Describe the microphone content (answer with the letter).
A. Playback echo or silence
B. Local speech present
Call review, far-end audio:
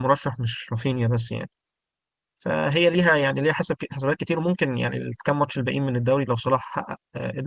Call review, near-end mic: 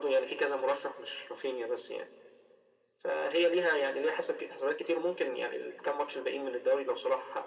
A